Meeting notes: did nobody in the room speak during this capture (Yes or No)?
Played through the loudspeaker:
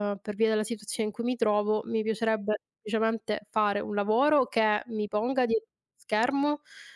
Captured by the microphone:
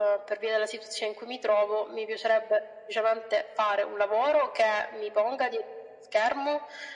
Yes